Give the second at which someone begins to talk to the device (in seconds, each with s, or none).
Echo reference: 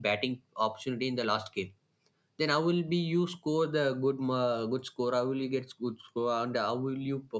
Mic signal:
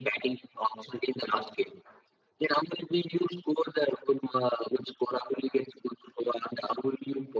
none